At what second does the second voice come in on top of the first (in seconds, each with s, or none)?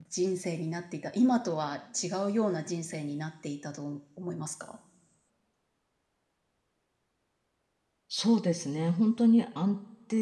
none